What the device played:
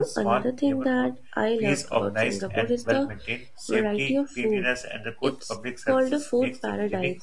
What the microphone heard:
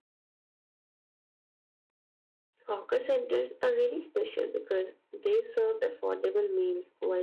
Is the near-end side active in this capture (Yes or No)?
Yes